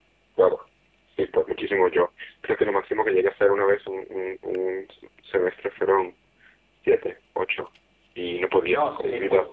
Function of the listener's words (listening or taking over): taking over